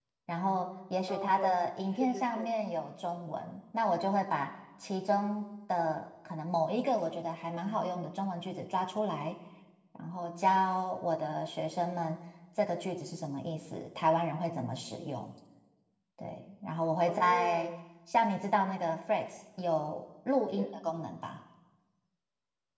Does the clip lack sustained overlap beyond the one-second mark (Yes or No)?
No